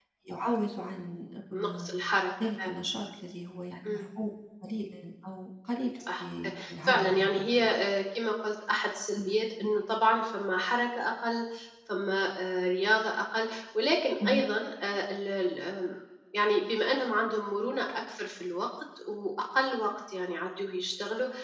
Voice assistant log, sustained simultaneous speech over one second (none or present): present